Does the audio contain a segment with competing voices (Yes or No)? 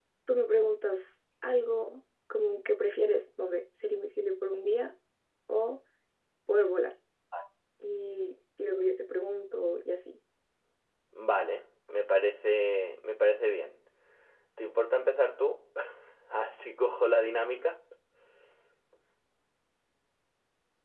No